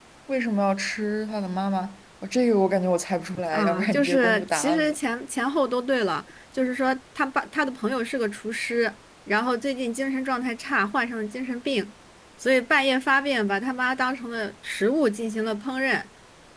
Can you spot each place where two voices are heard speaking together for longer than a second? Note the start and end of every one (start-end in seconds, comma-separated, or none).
3.5-5.0